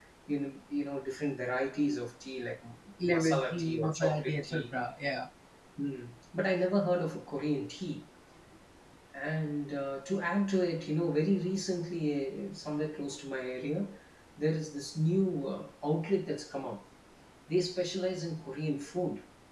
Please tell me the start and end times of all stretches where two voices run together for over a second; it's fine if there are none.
3.1-4.6

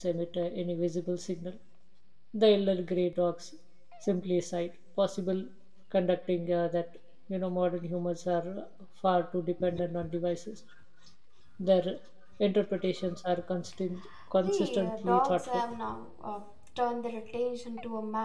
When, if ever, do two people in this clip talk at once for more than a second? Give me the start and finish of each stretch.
14.4-15.6

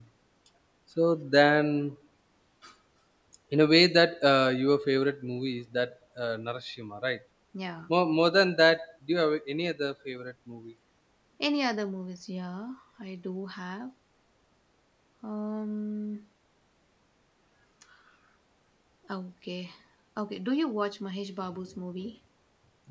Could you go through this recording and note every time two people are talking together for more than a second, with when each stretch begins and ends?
none

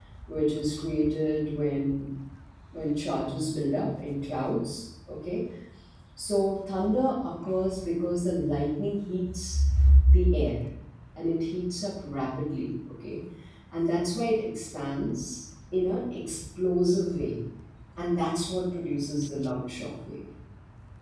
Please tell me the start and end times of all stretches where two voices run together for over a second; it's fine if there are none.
none

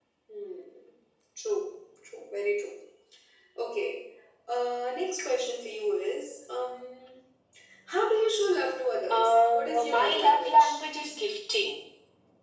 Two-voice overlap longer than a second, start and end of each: 9.1-10.8

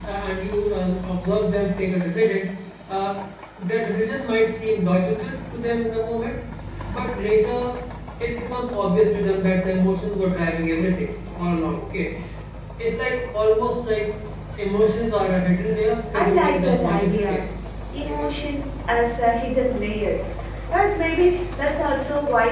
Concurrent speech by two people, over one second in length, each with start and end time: 16.1-17.4

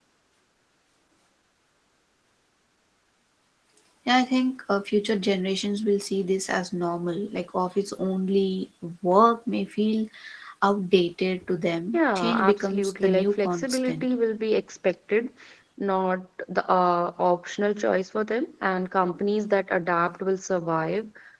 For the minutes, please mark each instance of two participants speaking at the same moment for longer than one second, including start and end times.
11.9-14.1

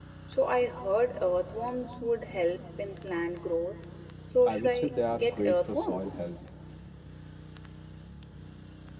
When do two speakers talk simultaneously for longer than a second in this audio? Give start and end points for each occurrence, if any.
4.4-6.2

